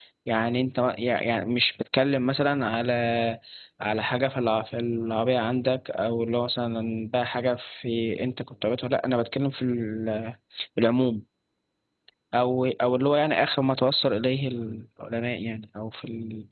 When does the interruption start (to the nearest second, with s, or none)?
none